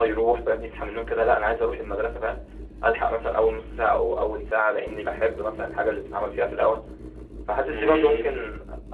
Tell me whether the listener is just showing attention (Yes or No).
Yes